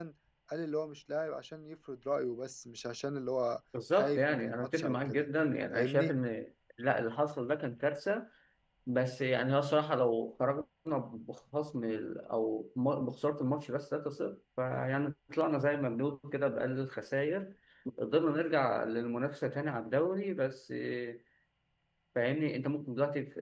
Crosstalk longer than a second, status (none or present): present